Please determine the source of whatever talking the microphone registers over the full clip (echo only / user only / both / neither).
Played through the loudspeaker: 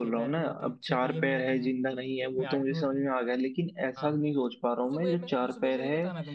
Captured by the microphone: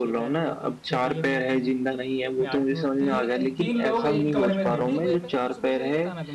both